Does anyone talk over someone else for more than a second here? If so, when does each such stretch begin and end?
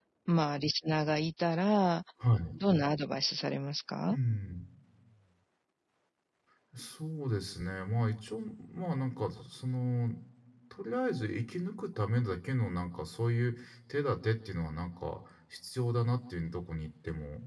none

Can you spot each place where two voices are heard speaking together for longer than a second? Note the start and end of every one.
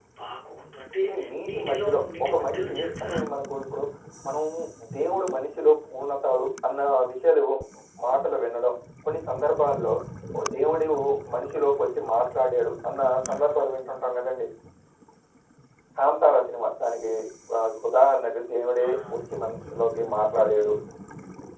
1.5-3.2

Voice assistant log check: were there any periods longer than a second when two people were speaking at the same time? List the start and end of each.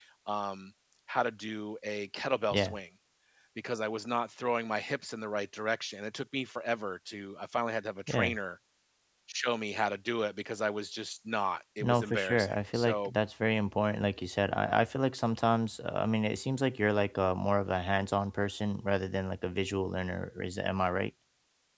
11.8-13.1

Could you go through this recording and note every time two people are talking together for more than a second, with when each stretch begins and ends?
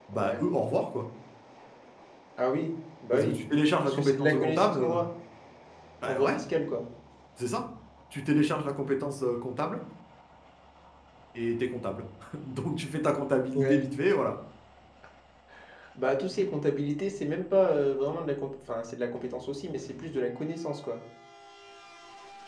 3.8-5.0

